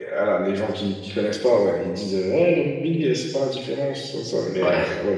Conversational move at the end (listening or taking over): listening